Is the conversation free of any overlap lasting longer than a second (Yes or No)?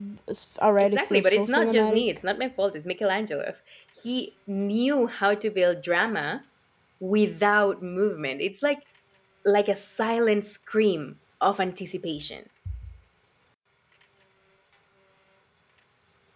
No